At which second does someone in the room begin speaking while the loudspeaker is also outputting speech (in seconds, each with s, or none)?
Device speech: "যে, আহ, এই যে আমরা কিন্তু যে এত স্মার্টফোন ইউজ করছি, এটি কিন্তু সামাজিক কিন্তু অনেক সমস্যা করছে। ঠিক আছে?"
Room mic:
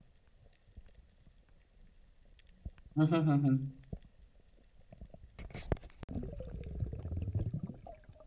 3.0 s